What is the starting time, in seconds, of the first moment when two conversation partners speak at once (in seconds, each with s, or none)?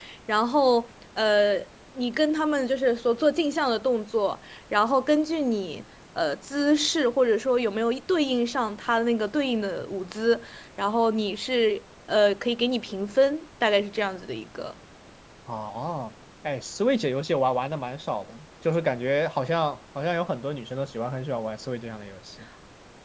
none